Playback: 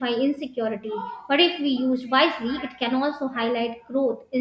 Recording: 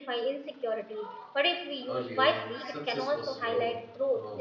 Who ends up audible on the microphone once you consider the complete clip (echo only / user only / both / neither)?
both